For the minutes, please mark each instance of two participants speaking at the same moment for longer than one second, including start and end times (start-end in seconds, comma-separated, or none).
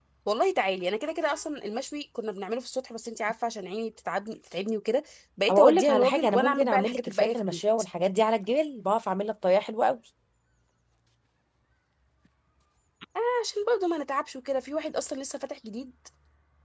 5.5-7.6